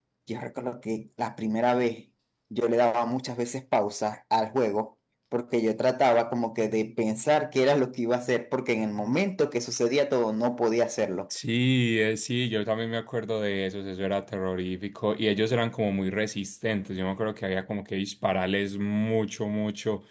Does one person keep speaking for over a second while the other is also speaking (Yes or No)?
No